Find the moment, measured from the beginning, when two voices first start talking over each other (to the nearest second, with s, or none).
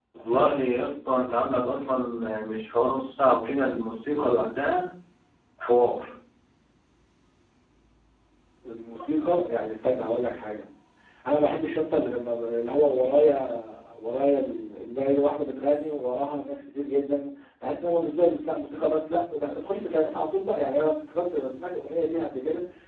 none